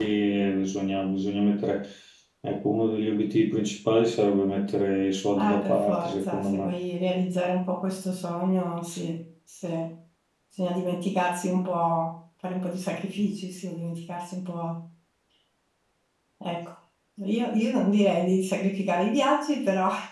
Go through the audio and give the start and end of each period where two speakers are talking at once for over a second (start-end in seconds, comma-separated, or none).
5.4-6.8